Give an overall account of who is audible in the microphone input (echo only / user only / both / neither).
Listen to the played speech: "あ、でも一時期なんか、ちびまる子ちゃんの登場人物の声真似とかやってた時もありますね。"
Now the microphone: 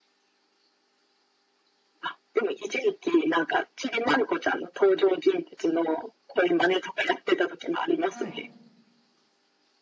both